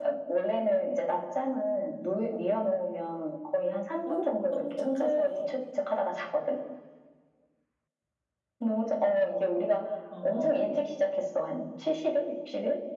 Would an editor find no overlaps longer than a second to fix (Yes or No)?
No